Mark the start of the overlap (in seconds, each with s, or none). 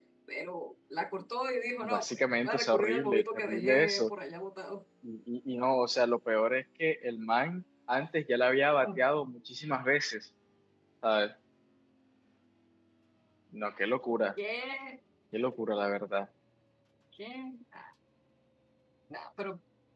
1.8 s